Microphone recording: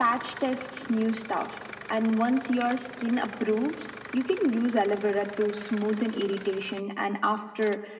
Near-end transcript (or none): none